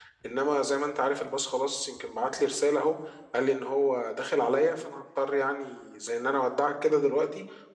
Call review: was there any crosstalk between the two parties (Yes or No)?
No